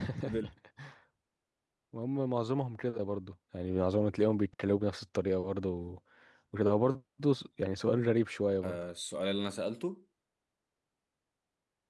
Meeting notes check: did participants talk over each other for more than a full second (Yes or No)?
No